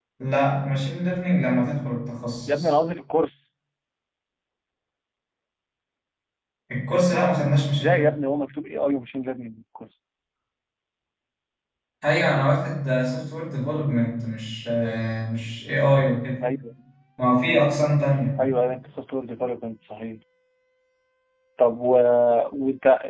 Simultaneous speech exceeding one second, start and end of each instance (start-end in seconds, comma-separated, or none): none